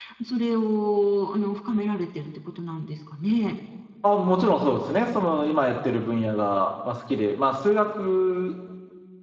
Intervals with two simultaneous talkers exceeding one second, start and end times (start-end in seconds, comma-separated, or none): none